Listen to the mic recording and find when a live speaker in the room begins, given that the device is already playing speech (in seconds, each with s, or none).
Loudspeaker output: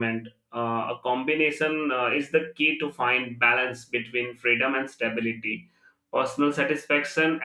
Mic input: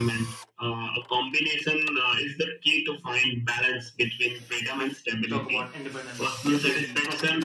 5.2 s